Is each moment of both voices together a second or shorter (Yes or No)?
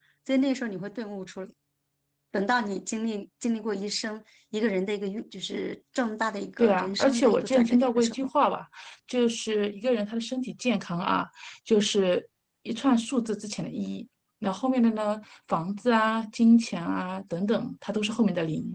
No